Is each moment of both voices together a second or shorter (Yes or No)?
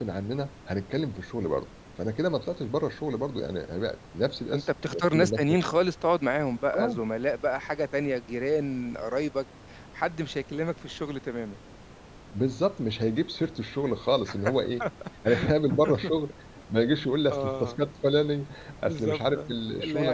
No